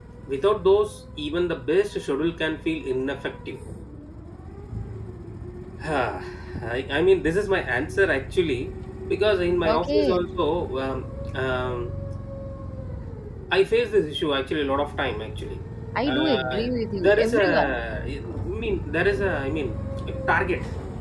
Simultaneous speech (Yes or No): Yes